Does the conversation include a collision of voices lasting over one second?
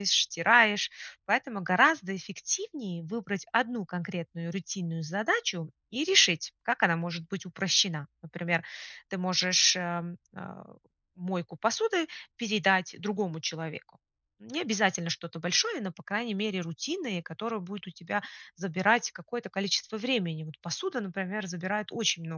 No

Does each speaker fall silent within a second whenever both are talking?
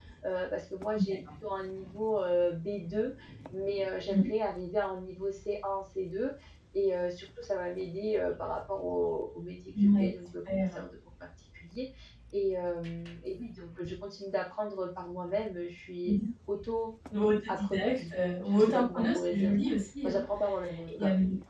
No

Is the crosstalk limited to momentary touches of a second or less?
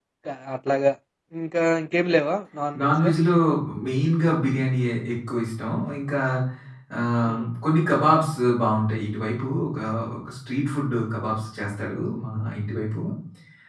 Yes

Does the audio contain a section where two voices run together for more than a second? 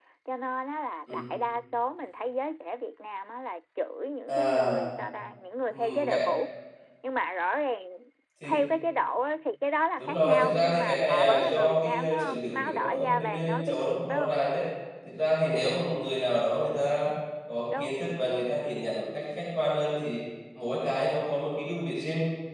Yes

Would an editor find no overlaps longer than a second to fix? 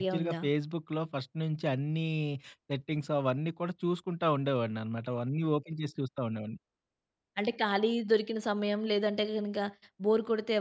Yes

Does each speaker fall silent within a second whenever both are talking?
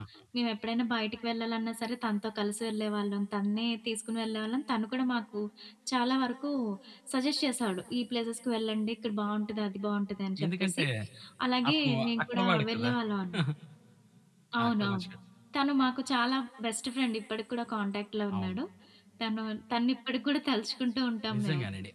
No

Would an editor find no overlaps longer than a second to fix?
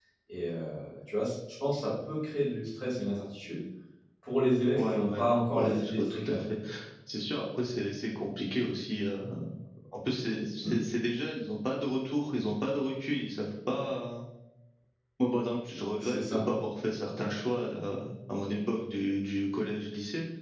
No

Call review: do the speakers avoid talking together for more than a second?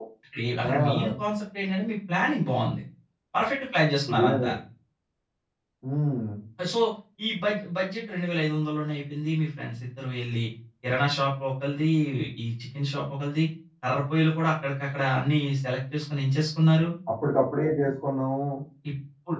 Yes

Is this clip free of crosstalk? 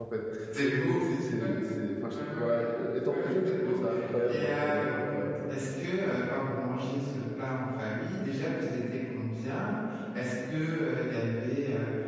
No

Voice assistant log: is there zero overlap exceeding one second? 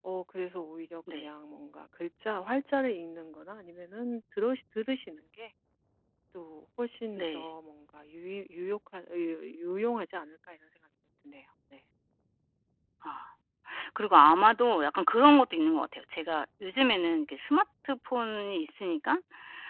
Yes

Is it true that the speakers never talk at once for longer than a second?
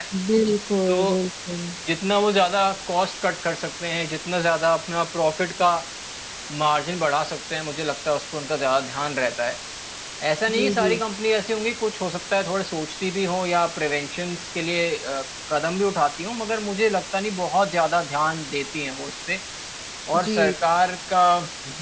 Yes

